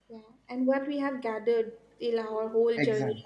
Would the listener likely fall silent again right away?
No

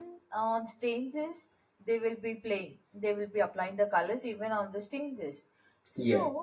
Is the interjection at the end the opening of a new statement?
No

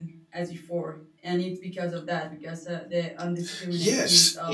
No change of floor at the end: No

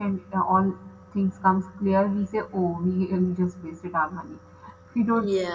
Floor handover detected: No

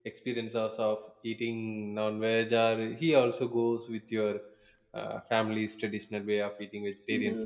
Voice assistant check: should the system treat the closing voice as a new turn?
Yes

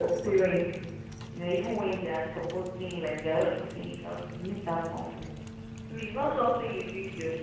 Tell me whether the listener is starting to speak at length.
No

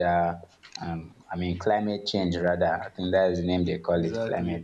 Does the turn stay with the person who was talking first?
No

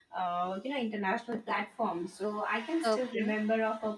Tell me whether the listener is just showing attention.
Yes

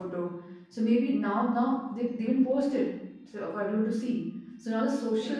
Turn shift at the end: No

